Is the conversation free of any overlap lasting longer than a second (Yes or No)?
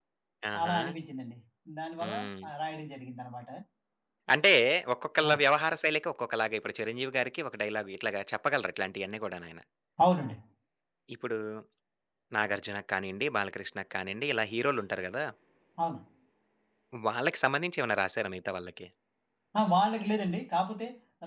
Yes